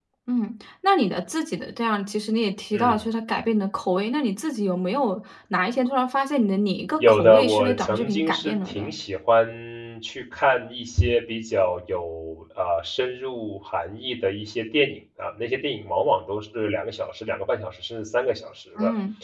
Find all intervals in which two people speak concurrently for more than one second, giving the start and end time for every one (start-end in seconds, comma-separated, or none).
7.1-8.9